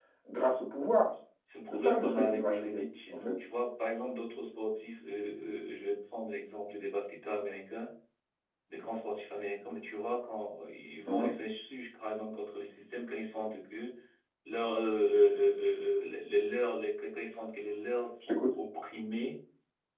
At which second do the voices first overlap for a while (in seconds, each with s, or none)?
1.7 s